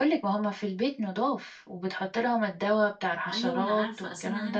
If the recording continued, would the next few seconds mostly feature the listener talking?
Yes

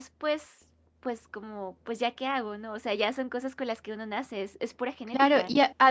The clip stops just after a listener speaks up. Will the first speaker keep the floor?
No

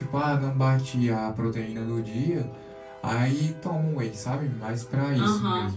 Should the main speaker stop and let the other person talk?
Yes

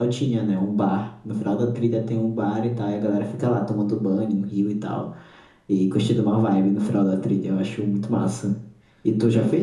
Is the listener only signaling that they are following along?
Yes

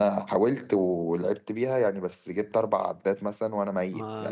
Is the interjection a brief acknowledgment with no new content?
No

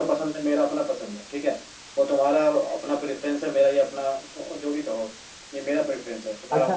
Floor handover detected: Yes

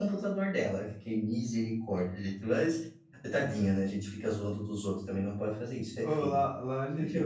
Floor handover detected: Yes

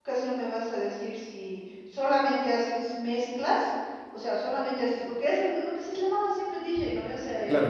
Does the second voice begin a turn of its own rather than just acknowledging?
No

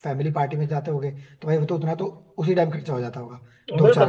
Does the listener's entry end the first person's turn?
Yes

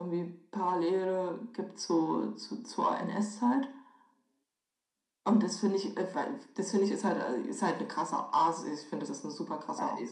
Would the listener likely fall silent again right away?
No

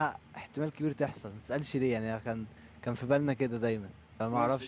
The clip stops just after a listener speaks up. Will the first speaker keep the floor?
No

